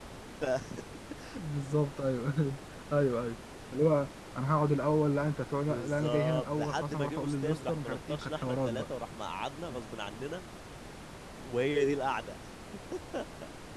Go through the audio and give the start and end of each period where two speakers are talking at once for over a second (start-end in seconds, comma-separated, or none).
5.7-8.9